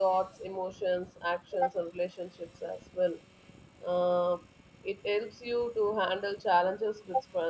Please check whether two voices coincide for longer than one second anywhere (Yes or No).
No